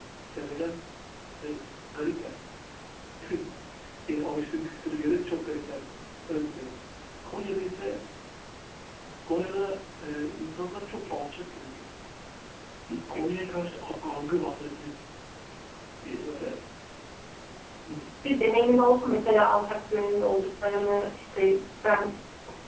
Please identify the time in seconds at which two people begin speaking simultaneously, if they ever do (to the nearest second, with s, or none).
none